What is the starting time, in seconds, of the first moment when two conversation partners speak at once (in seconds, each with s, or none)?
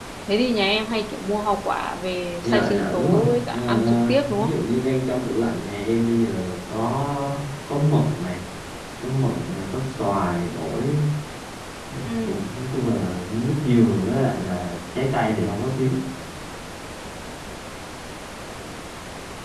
2.4 s